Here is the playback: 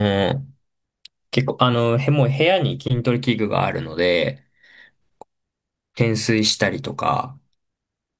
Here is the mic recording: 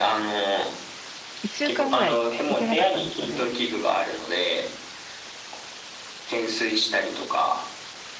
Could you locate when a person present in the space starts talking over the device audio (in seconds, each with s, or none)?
1.4 s